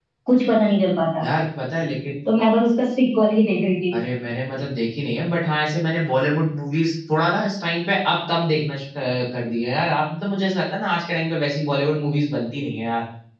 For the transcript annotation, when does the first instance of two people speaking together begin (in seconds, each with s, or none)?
none